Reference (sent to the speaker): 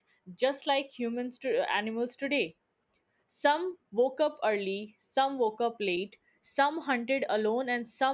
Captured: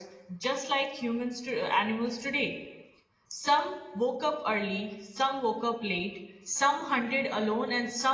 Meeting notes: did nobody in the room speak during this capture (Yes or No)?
Yes